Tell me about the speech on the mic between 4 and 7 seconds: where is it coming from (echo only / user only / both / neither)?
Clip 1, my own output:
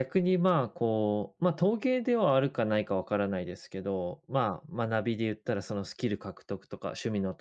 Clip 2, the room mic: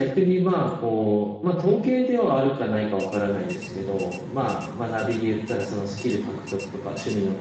echo only